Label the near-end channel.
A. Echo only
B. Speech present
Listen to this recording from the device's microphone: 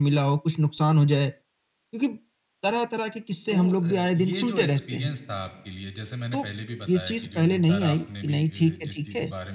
B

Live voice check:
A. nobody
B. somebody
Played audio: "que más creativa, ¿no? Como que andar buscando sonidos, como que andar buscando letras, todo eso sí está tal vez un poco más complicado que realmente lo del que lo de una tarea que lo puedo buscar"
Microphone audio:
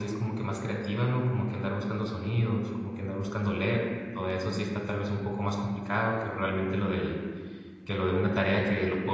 A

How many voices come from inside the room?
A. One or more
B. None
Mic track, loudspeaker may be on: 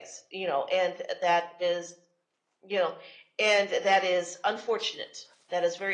B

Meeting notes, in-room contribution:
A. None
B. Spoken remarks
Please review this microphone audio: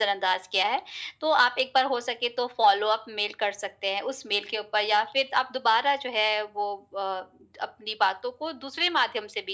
A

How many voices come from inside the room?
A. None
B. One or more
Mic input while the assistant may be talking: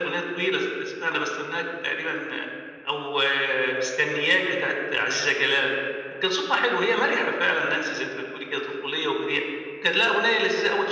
A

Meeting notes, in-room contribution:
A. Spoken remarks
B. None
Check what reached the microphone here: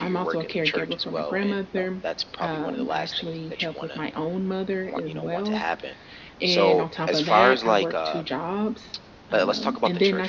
B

